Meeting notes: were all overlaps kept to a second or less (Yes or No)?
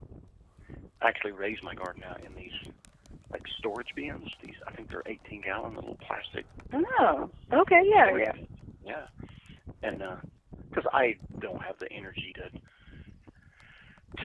Yes